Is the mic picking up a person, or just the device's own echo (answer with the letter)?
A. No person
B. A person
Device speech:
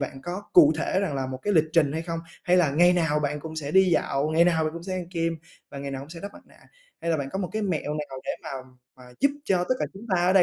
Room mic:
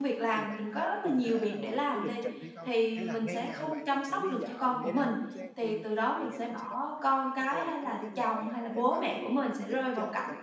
B